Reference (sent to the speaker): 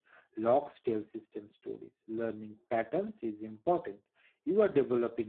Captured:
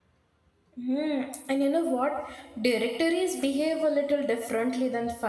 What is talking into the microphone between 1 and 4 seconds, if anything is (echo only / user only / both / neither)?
user only